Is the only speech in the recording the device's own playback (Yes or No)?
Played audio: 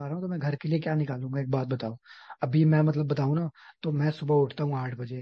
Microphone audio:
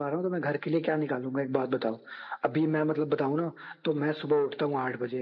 Yes